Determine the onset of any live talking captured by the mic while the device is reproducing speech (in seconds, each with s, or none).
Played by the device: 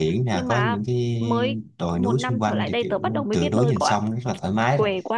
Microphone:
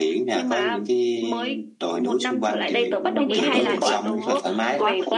2.7 s